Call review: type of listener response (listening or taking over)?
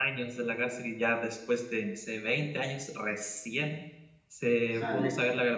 listening